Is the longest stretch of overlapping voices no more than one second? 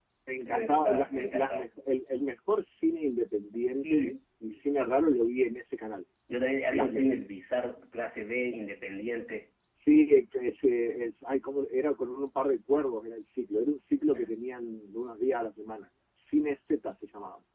No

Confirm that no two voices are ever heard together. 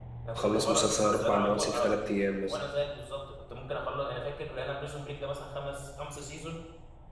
No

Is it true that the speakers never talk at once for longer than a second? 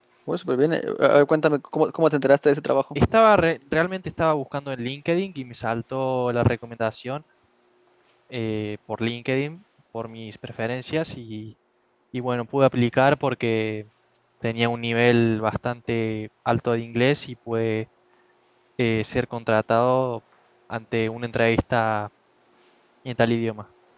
Yes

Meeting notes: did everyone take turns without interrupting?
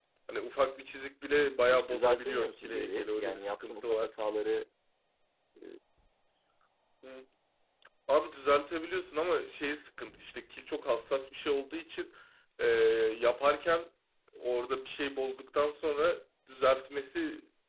No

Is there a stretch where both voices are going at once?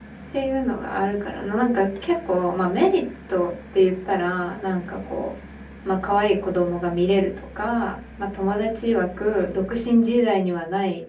No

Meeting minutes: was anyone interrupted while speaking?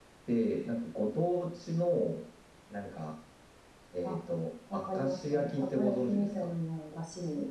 Yes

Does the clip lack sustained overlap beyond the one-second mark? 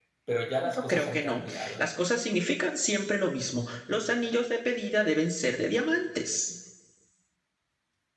No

